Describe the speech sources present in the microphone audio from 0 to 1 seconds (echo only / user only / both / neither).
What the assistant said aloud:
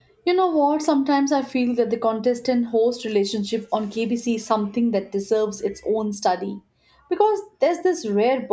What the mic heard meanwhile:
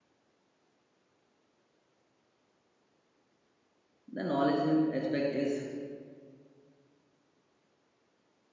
neither